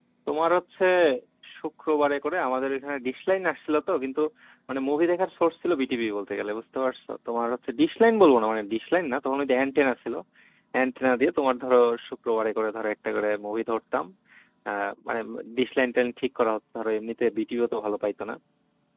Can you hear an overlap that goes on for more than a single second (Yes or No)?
No